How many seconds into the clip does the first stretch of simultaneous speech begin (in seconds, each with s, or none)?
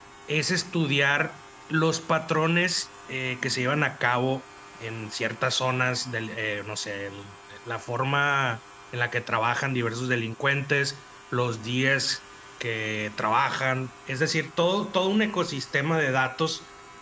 none